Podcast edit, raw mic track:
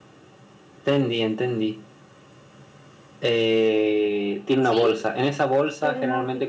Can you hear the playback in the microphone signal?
Yes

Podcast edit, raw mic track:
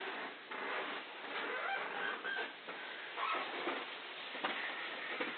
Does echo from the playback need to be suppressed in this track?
No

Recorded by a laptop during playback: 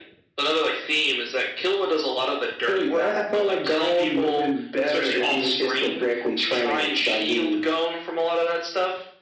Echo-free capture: No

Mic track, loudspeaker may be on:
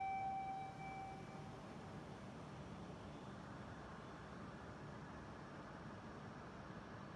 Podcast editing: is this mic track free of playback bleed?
Yes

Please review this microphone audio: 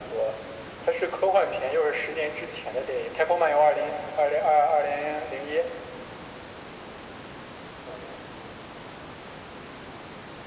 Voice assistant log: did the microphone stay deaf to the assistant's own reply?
No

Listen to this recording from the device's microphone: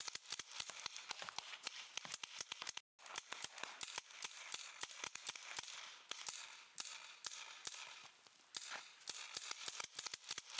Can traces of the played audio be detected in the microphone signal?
No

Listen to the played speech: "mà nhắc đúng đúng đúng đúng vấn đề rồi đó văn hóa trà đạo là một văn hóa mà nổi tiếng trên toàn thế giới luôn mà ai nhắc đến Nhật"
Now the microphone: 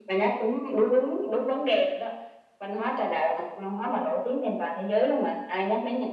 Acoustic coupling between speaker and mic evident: Yes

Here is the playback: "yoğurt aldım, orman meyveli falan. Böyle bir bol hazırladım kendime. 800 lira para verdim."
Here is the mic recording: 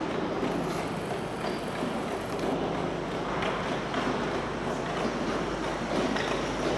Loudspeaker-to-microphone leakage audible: No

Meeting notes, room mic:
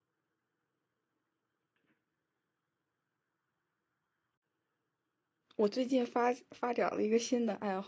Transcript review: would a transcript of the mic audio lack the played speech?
Yes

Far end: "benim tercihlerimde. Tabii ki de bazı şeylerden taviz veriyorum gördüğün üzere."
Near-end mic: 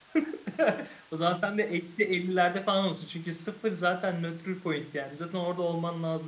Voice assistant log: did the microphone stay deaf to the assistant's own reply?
Yes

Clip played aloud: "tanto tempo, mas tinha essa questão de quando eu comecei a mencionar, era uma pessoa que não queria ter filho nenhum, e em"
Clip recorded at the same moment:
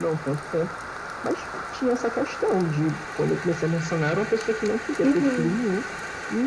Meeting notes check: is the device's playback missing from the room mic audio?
No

